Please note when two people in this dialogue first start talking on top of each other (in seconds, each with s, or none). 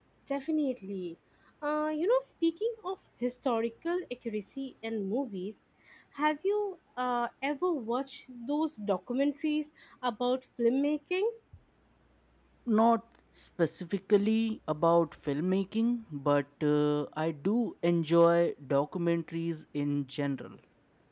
none